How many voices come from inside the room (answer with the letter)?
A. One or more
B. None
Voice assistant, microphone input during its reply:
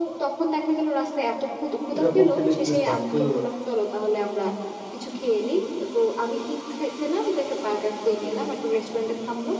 A